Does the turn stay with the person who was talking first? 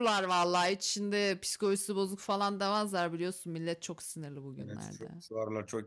No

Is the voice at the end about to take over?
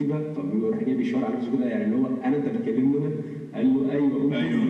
No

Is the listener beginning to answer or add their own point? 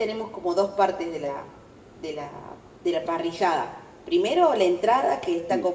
No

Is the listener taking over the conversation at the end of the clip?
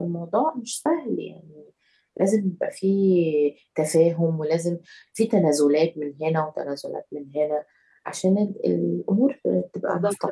Yes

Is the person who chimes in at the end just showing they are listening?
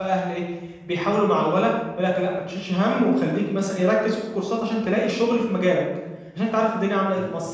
Yes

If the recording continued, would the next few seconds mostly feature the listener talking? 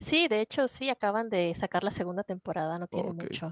Yes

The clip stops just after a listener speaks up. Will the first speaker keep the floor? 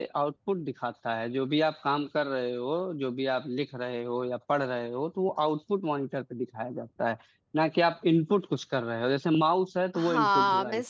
No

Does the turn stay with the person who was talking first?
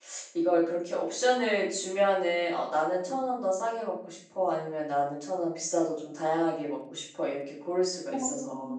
No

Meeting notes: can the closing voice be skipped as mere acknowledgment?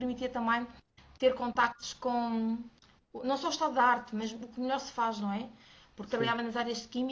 Yes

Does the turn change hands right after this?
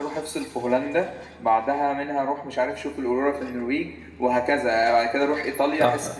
Yes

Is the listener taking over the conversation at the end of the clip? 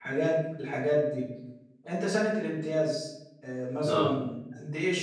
No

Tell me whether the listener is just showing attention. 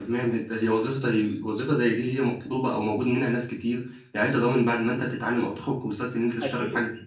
No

